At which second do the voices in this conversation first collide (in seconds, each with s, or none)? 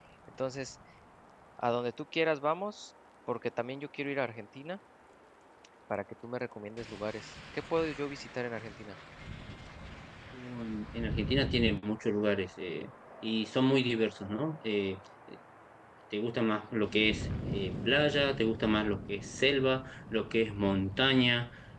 none